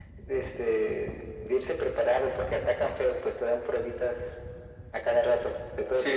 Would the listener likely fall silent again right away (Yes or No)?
No